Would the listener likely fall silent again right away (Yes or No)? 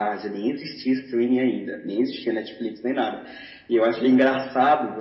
Yes